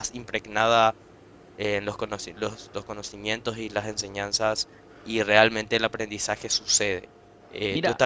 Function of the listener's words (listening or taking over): taking over